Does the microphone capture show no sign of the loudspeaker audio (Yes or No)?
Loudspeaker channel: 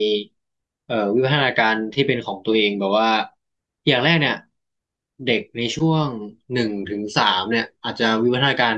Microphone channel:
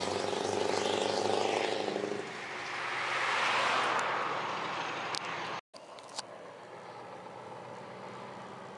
Yes